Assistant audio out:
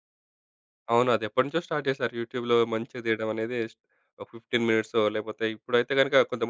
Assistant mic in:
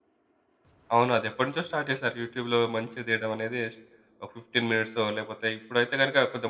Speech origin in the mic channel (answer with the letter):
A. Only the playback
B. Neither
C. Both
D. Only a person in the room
A